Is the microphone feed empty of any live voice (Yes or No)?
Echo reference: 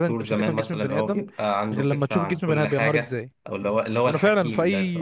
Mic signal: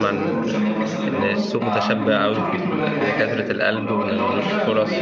No